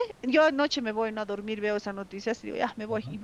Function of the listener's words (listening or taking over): listening